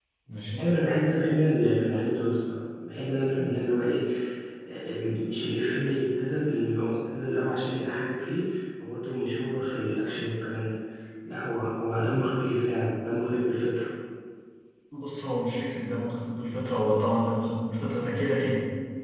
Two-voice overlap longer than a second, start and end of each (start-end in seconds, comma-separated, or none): none